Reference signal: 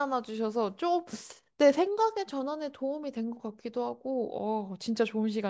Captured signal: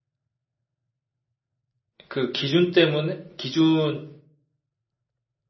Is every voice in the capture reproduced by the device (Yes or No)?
No